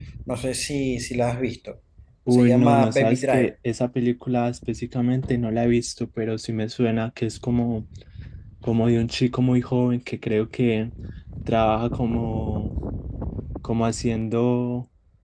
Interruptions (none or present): present